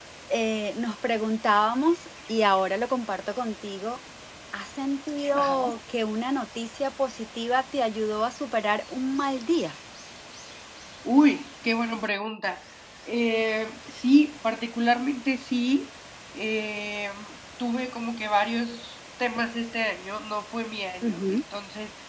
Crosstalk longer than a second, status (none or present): none